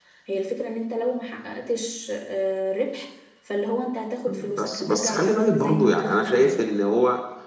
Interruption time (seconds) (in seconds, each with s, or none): 4.3 s